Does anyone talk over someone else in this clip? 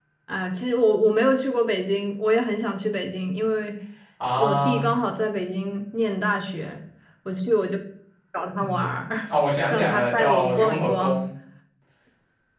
Yes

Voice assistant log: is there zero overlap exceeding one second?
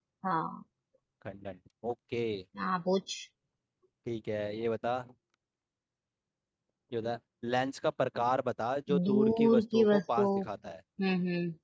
No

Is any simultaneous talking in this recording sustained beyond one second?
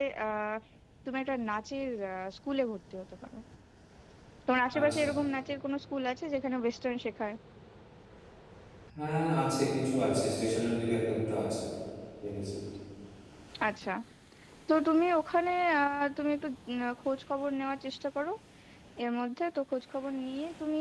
No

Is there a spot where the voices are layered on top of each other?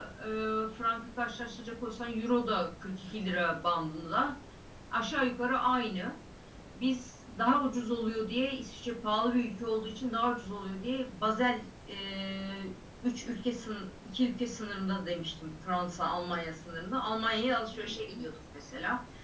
No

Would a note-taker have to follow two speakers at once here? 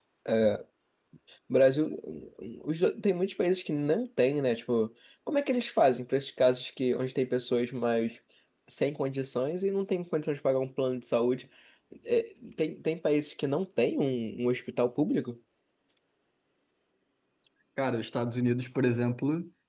No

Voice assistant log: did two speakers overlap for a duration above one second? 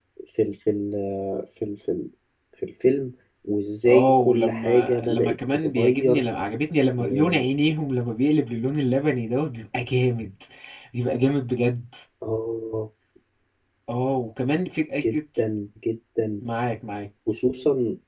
Yes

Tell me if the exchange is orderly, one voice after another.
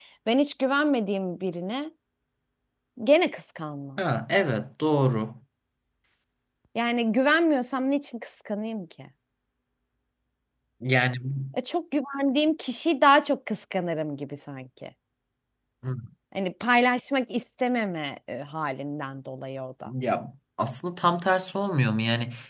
Yes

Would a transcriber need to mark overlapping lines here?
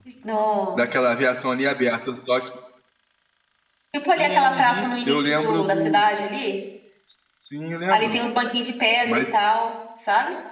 Yes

